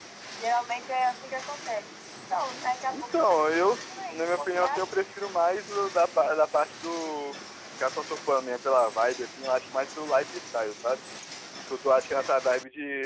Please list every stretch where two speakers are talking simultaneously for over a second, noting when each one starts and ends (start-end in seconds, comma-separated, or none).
2.9-5.1